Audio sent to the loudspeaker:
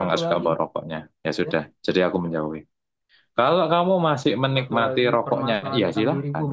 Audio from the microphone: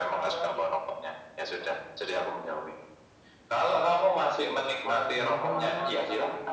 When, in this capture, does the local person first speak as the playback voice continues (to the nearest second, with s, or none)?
5 s